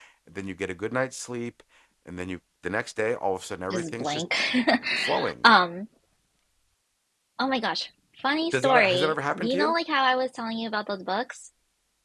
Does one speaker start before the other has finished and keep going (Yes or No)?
Yes